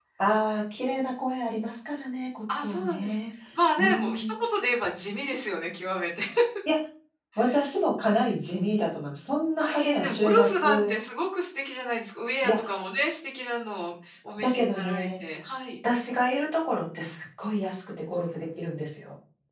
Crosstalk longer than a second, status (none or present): present